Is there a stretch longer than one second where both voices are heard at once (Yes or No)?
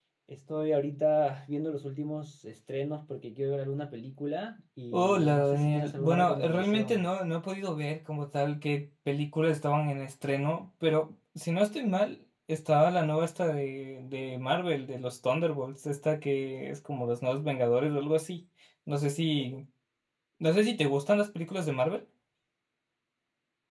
Yes